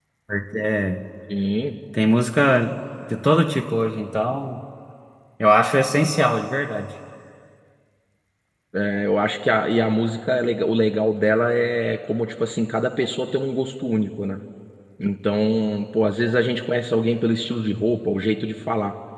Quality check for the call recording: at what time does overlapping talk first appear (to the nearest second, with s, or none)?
none